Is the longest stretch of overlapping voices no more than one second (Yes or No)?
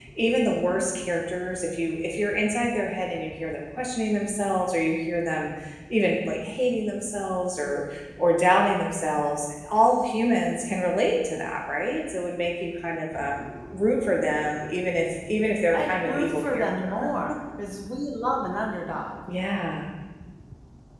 No